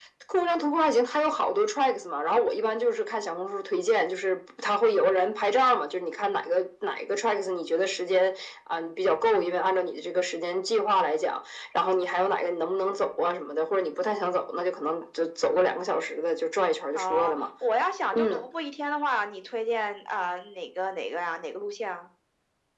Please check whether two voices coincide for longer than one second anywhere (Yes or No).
No